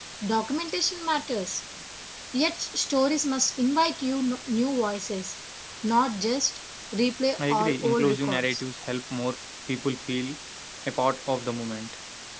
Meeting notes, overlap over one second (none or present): present